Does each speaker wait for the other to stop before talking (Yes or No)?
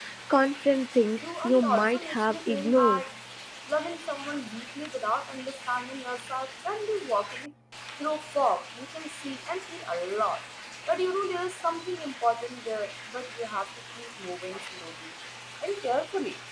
No